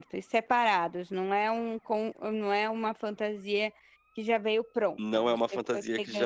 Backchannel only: No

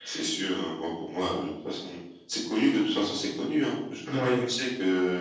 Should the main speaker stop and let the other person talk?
No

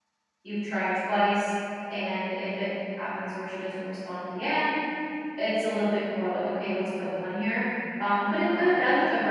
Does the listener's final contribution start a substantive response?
No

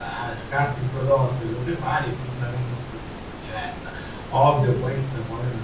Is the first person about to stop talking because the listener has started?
No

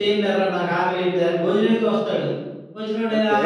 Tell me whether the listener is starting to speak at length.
No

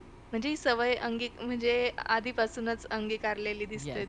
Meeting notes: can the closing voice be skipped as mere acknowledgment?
No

